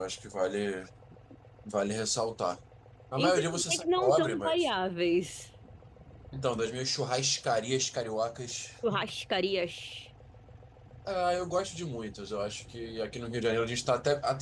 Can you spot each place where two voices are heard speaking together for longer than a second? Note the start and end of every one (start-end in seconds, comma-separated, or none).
3.2-4.7